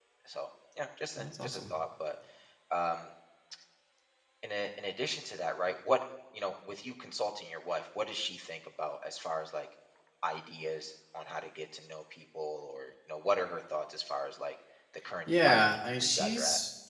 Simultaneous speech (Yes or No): Yes